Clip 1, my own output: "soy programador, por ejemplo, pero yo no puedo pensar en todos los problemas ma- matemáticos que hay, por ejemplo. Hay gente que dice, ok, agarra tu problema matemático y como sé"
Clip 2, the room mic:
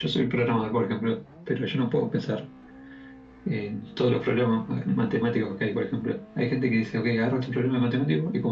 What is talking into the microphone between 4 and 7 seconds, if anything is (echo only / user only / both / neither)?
echo only